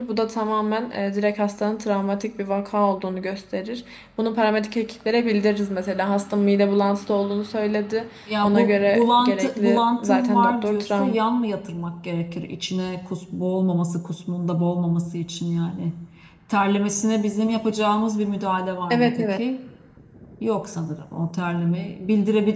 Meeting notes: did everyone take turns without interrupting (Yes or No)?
No